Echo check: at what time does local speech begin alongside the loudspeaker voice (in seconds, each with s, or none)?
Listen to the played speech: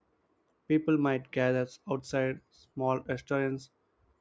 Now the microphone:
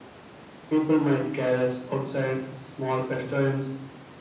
none